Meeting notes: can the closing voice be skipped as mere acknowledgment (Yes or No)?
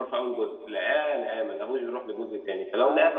Yes